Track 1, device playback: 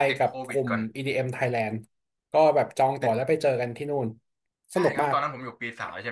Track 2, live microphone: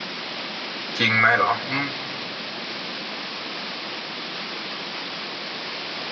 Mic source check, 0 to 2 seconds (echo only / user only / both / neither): user only